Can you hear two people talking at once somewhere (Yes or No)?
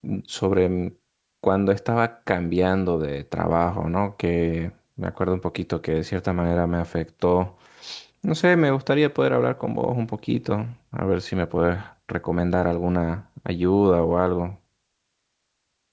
No